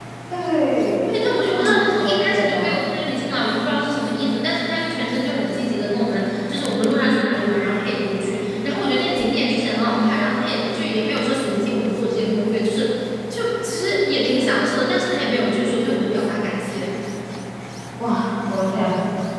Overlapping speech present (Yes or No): Yes